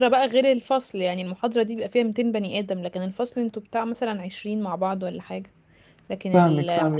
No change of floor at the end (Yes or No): No